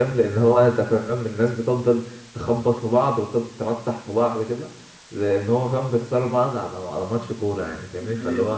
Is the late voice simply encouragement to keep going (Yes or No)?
Yes